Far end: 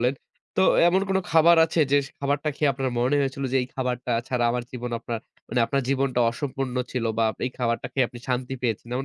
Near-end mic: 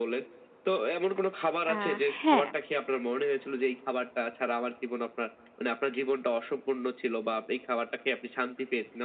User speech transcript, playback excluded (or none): আ হ্যাঁ।